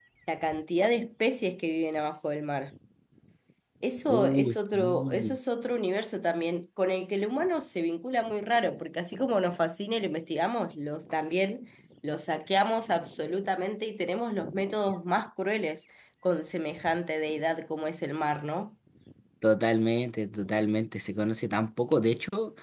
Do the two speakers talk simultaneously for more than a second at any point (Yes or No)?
Yes